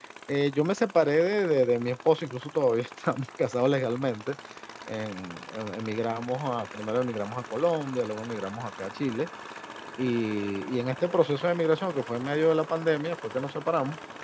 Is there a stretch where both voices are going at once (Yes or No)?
No